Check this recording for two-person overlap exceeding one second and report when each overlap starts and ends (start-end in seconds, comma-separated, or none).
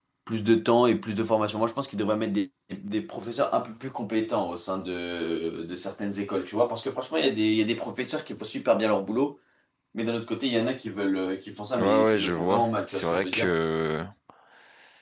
11.8-13.5